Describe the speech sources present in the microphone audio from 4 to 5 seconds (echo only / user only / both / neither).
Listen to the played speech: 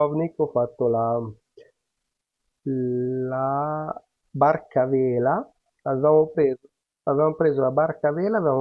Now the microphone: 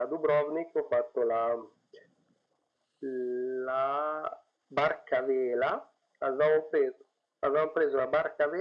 echo only